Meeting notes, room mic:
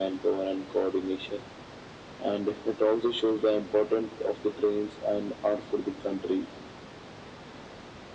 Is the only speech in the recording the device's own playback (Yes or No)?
Yes